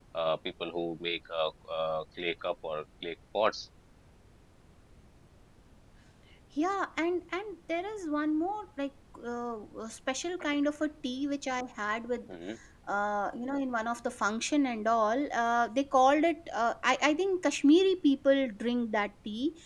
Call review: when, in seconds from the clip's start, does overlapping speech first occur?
none

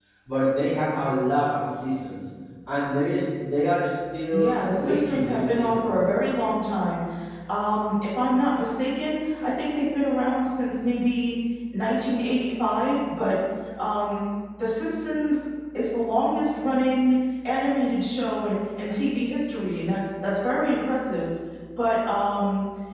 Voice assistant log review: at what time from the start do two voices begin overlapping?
4 s

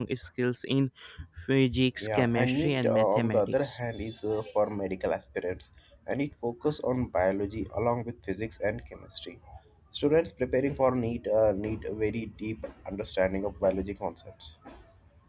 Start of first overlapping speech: 2 s

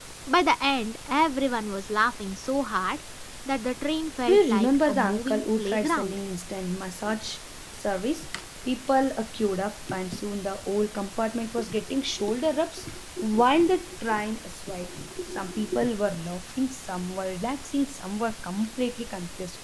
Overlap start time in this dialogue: 4 s

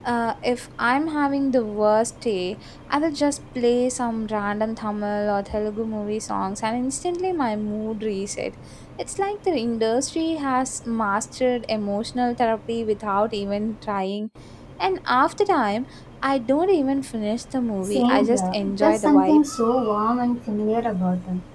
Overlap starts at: 18 s

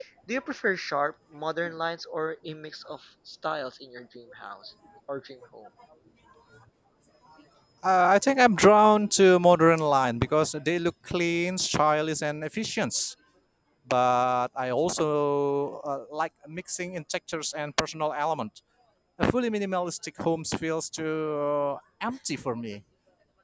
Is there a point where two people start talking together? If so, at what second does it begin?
none

